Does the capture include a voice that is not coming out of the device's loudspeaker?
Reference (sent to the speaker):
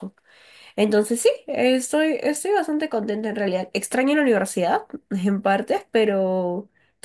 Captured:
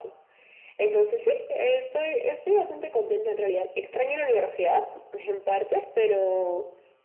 No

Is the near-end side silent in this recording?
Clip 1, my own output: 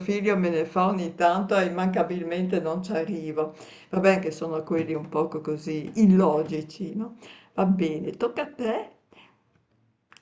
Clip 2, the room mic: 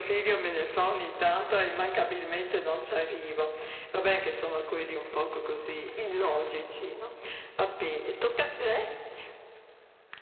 Yes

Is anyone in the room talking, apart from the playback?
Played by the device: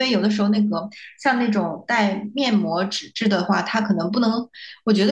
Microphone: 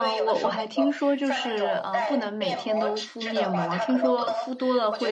Yes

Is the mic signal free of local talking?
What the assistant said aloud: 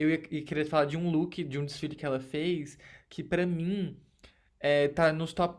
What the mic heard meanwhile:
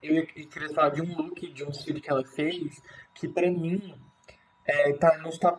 Yes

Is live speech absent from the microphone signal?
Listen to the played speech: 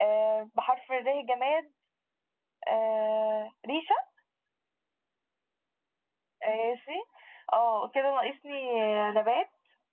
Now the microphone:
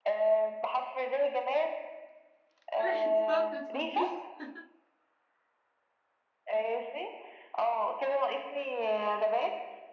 No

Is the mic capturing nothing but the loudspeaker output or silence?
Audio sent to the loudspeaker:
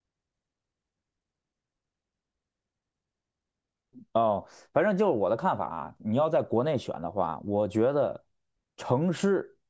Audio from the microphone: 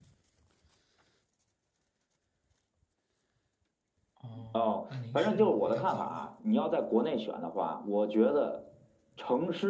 No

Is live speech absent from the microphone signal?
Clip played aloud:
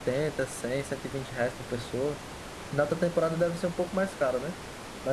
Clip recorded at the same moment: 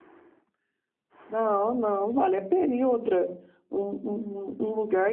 No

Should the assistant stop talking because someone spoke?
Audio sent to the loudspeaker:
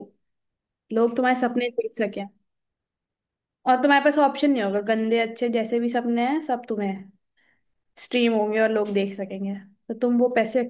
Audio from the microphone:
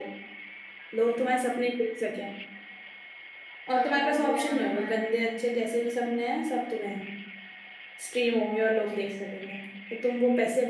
Yes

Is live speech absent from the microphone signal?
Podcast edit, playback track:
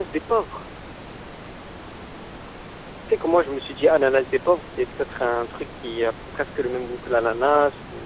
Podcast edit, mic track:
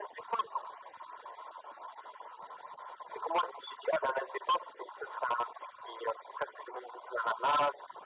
Yes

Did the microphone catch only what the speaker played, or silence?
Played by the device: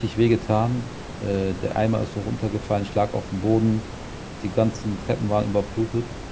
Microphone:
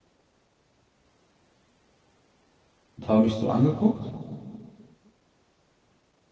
No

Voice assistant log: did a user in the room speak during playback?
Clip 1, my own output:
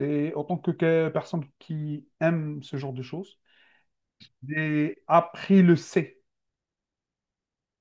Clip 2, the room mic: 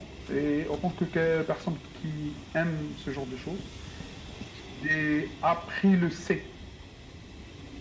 No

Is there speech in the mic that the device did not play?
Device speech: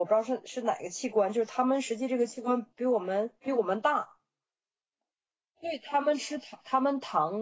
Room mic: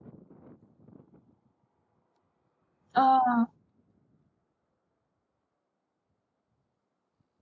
Yes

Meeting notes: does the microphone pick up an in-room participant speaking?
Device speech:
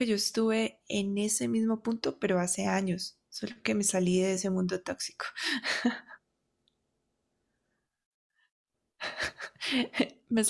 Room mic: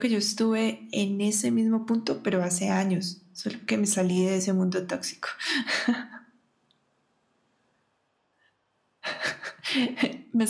No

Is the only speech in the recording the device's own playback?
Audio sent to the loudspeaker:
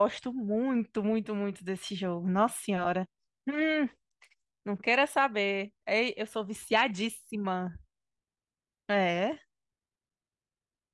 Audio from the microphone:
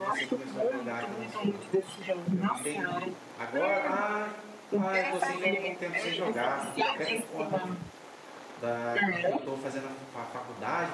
No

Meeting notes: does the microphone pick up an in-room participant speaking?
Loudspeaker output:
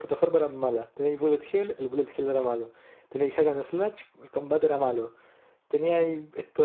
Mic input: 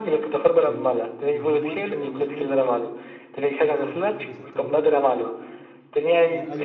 Yes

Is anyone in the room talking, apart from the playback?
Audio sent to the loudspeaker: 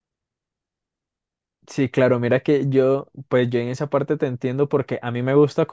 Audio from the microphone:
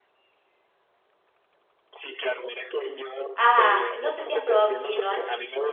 Yes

